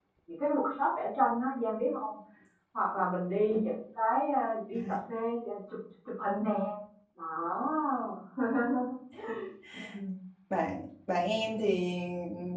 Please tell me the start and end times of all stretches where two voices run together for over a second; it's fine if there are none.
none

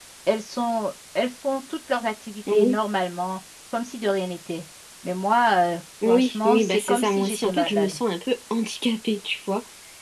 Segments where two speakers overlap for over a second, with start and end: 6.0-8.0

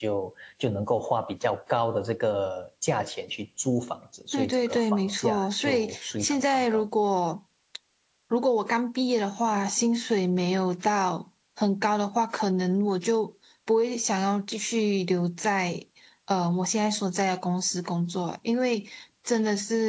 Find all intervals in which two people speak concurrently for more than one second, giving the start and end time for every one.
4.3-6.8

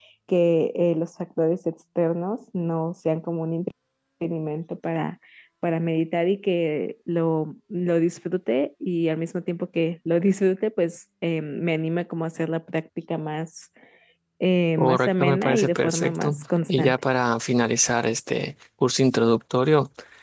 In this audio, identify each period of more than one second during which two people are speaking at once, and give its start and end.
14.8-17.0

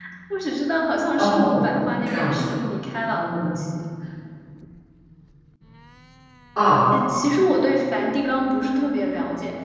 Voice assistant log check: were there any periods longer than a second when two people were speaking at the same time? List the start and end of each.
1.1-2.6

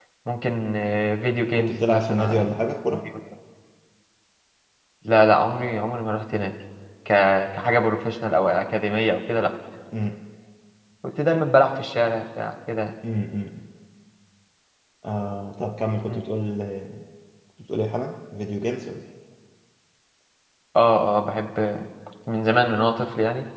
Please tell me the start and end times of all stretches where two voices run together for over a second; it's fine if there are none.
1.5-3.0

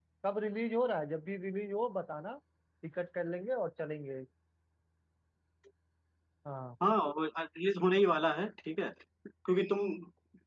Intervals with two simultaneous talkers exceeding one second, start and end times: none

